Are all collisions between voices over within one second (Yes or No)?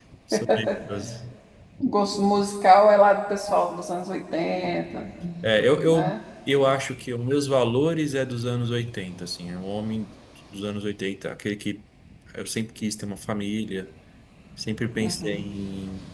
Yes